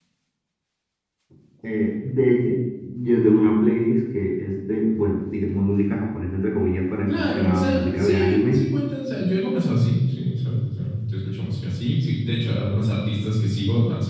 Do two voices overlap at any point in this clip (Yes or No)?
Yes